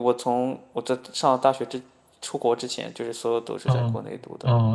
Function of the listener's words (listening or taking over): taking over